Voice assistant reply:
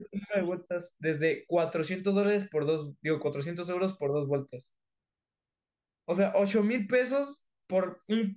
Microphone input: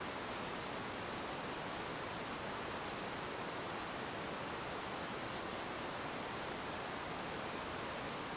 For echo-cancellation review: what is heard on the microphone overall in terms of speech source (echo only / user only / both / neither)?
neither